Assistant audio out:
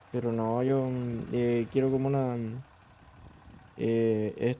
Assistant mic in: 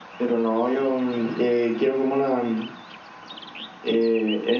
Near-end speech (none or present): none